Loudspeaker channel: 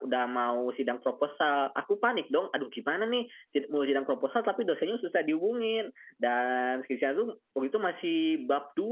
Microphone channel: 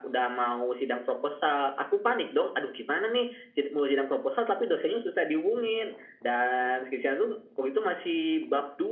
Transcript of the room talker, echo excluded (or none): none